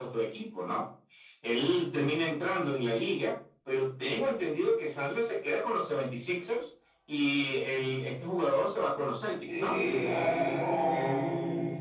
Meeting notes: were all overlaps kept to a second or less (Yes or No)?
Yes